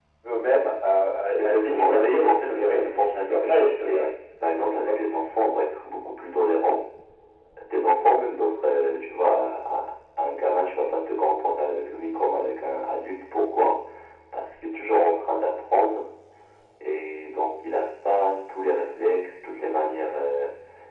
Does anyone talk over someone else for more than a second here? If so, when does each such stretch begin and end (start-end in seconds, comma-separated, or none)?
1.4-4.1